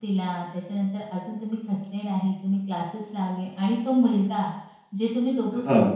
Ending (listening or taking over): listening